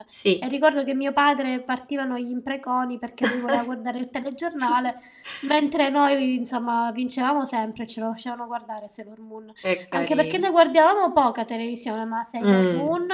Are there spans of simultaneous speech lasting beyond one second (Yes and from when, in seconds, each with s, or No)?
No